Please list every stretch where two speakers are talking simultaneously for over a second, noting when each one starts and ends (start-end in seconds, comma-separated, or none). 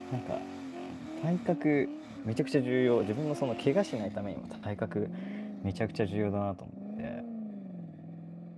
none